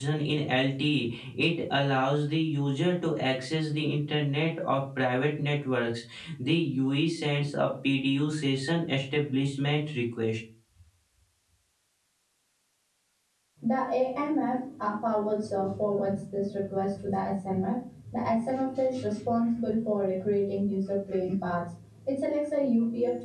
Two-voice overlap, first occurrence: none

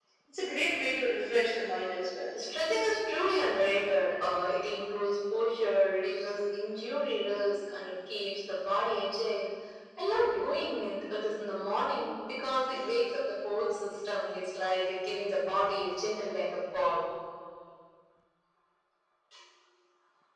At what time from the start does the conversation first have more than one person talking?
none

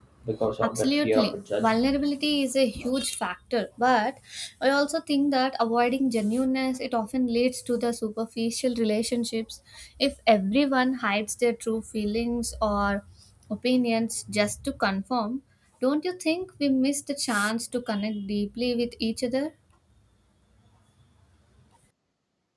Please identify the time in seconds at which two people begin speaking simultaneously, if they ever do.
0.6 s

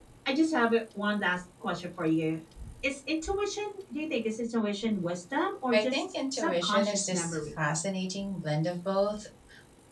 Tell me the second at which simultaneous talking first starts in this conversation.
5.7 s

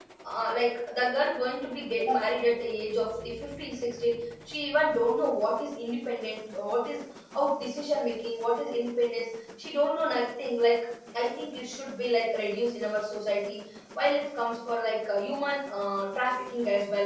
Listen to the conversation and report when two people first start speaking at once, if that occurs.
none

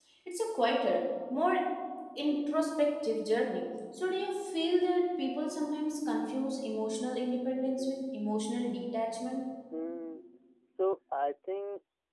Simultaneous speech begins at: none

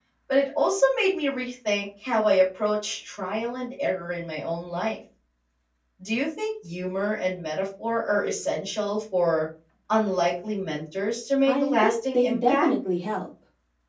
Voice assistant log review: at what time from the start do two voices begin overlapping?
11.5 s

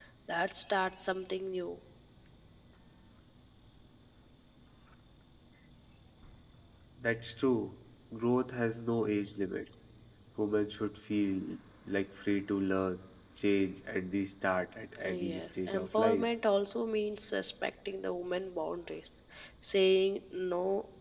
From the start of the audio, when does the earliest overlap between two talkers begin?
15.0 s

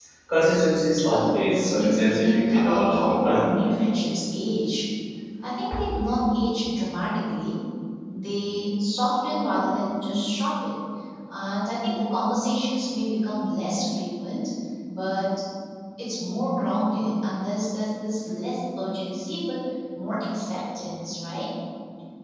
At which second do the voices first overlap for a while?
1.1 s

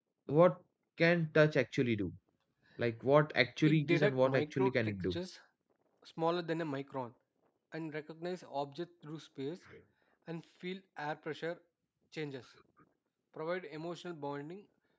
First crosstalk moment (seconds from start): 3.7 s

